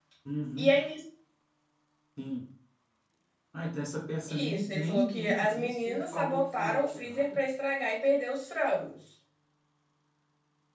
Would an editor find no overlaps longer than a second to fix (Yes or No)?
No